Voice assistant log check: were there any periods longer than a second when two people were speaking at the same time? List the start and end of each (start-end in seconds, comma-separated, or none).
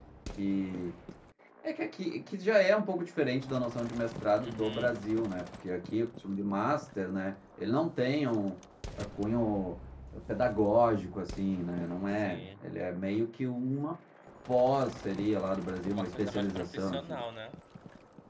15.9-17.2